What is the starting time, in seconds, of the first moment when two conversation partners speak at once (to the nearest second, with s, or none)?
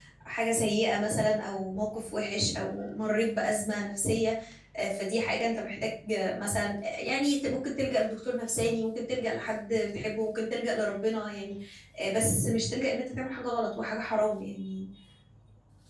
none